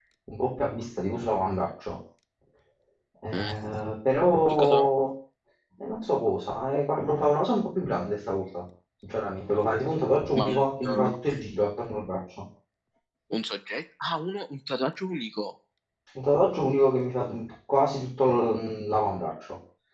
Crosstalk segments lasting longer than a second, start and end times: none

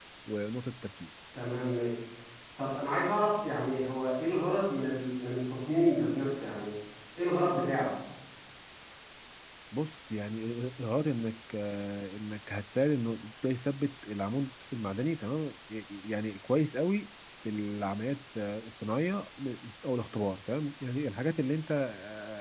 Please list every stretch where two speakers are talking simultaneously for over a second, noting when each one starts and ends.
none

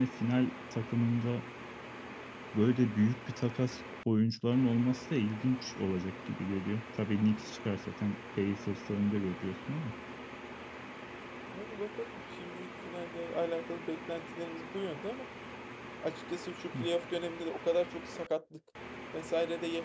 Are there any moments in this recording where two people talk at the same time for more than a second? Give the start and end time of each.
none

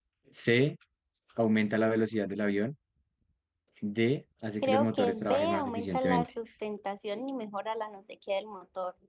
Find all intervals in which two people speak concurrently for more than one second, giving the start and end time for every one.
4.6-6.3

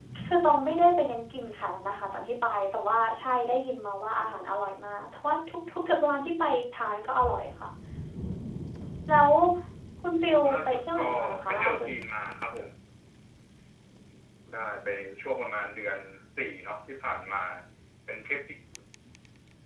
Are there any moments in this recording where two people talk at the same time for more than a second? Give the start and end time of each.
10.5-11.9

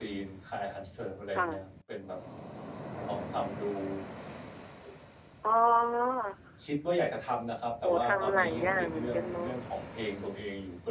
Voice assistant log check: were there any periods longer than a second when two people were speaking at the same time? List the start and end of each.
7.8-9.5

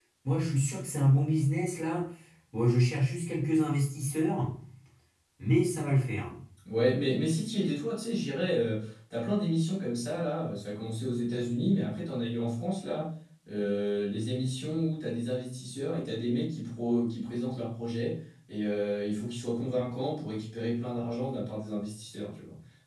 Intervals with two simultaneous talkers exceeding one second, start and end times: none

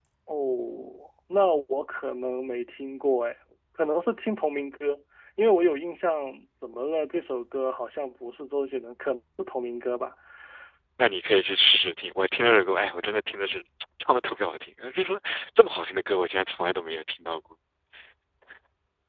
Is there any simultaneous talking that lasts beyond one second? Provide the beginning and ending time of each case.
none

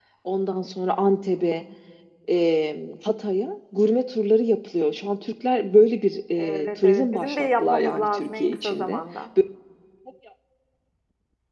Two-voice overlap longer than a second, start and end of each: 6.4-9.0

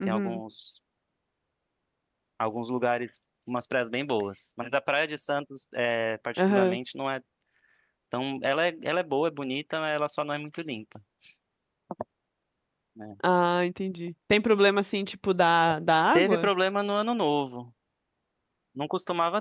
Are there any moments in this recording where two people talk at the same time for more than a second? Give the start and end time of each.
none

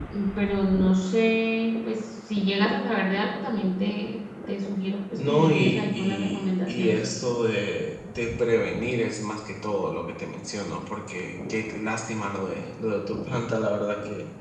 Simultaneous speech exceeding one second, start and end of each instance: 5.1-7.2

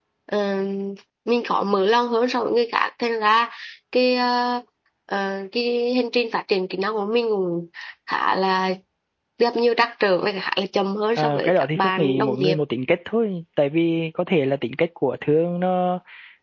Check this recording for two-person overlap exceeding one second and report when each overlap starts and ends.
11.2-12.6

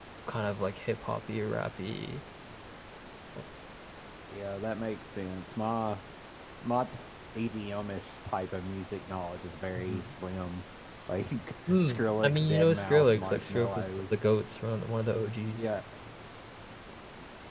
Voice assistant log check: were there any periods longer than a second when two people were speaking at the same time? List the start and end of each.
11.8-13.8

